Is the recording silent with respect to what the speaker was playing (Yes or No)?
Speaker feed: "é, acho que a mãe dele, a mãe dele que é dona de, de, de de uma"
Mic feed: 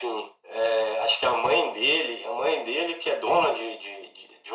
No